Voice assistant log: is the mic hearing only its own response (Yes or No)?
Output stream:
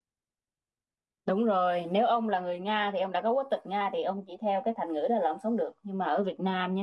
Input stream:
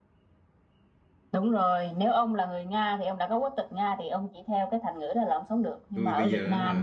No